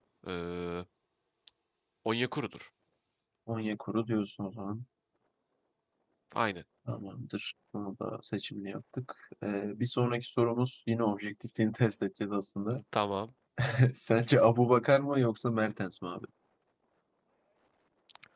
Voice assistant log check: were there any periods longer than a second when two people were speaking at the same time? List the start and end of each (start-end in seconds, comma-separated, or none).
none